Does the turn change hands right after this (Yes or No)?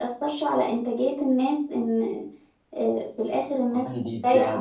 Yes